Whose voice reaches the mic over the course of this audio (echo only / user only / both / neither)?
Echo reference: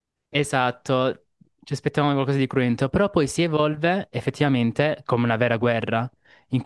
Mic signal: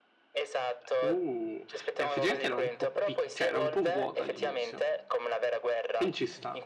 both